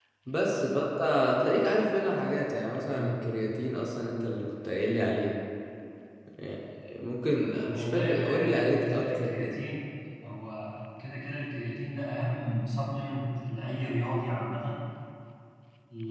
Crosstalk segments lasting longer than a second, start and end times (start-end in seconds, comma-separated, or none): 7.7-9.6